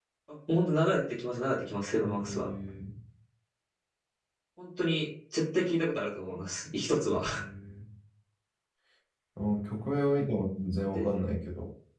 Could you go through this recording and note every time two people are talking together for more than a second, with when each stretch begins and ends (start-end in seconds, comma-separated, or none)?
none